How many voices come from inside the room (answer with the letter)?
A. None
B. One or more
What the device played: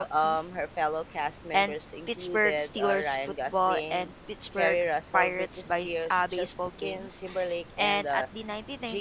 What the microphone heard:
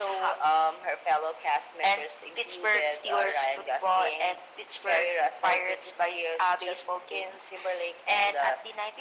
A